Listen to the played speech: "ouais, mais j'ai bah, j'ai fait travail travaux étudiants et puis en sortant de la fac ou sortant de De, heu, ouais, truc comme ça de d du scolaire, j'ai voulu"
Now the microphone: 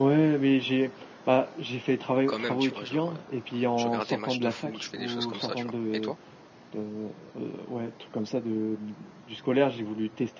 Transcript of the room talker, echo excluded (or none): quand même, tu vois? Genre, heu, je regarde des matchs de foot, je fais des choses comme ça, tu vois? Et toi?